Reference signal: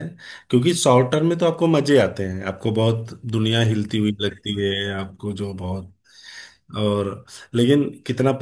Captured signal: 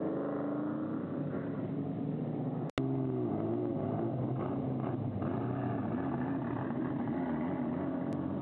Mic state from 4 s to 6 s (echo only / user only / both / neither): neither